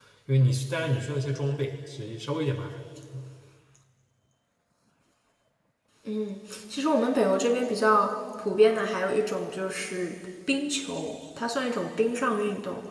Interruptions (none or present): none